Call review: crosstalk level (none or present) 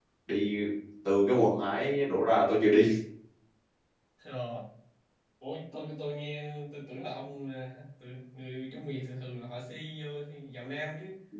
none